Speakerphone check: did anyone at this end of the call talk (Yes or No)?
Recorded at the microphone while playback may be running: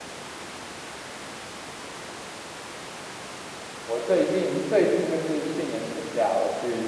Yes